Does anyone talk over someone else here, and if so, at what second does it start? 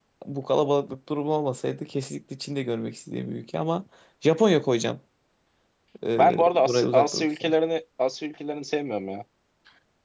6.2 s

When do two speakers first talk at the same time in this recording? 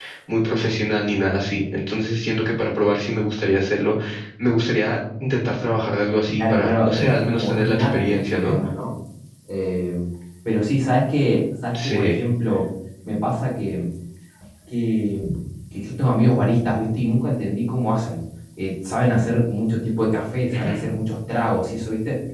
6.4 s

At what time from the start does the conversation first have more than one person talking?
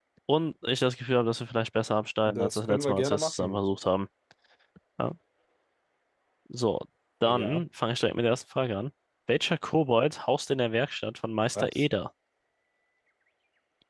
2.2 s

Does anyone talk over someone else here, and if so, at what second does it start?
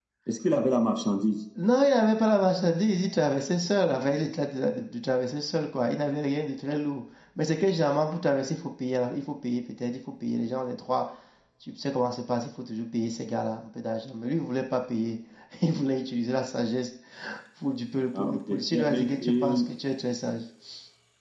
18.2 s

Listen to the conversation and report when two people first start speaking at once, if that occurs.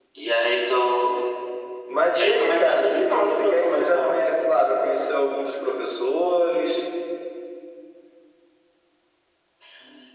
2.1 s

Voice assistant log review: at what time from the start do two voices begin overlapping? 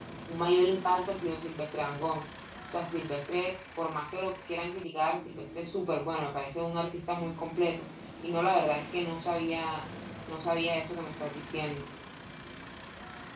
none

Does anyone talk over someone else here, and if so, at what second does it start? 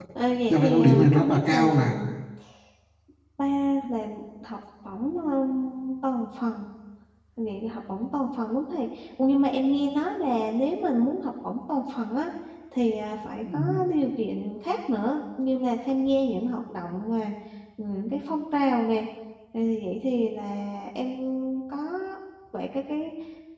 0.5 s

